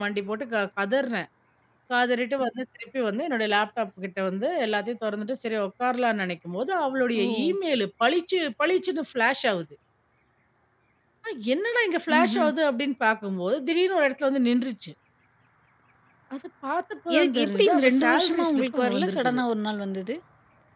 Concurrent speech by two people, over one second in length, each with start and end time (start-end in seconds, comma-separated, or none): 17.2-19.4